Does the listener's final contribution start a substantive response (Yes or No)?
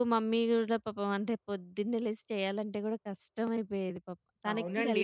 Yes